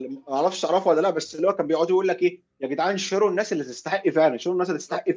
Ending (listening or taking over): listening